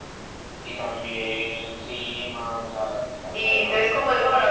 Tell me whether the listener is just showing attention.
No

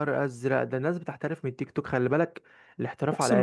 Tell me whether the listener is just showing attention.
Yes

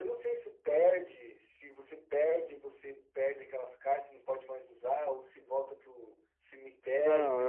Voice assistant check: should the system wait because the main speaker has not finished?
No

